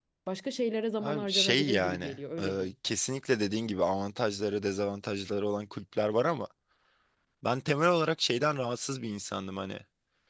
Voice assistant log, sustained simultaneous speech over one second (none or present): present